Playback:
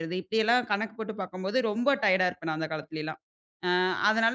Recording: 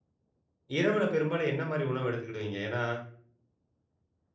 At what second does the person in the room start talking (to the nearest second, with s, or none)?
1 s